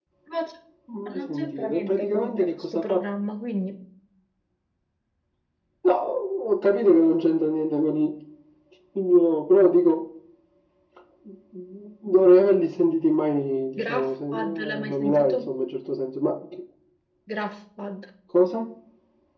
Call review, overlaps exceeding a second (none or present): present